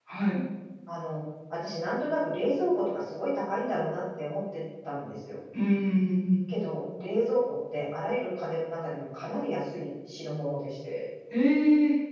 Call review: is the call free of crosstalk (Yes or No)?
Yes